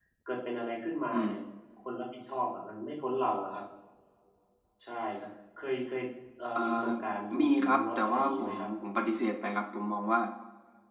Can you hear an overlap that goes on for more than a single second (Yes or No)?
Yes